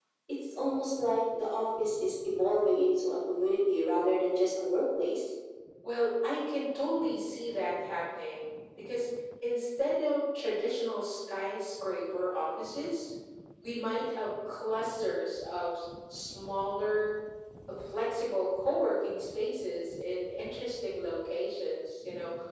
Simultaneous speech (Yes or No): No